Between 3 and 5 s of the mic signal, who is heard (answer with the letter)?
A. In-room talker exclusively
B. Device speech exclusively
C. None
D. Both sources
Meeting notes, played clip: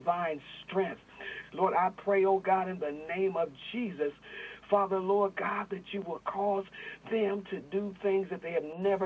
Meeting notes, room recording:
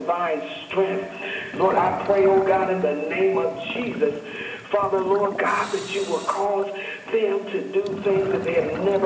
B